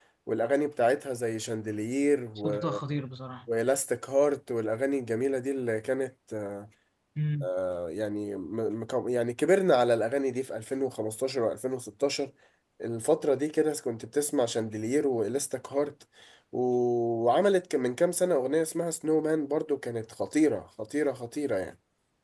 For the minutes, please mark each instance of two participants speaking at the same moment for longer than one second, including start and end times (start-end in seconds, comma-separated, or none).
none